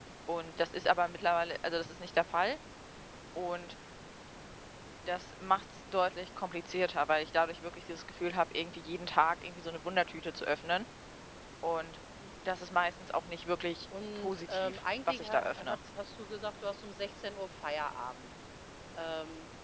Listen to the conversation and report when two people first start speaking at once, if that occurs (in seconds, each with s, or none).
13.9 s